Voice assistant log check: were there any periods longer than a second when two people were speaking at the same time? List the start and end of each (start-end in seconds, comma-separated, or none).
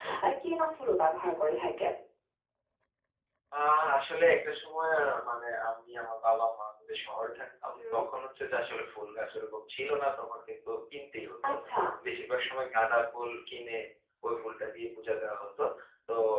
none